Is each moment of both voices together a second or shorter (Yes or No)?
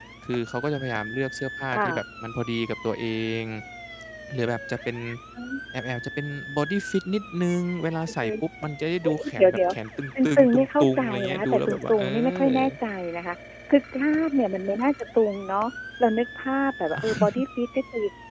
No